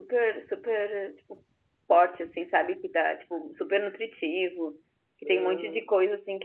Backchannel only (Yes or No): Yes